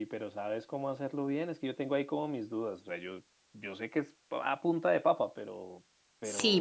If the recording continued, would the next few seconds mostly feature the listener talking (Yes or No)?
Yes